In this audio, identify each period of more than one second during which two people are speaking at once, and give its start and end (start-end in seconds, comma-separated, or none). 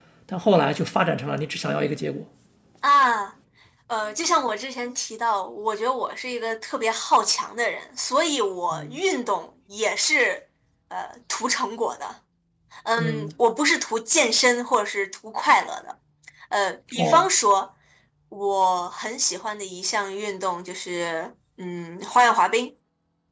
none